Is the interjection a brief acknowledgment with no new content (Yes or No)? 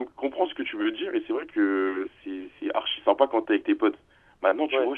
Yes